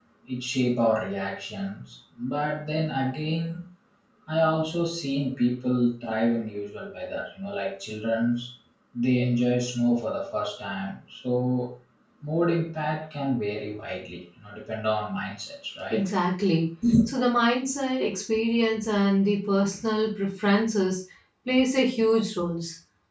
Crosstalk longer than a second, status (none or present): none